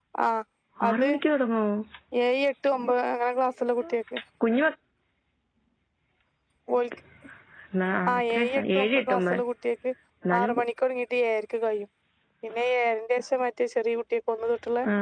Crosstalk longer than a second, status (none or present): present